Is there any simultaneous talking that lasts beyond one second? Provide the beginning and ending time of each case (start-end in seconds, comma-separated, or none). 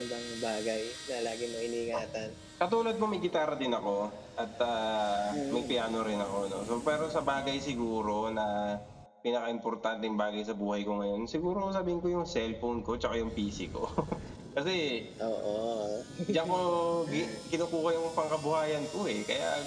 none